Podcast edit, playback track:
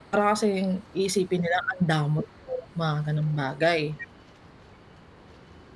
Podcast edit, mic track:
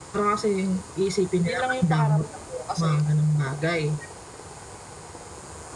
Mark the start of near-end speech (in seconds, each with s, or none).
1.4 s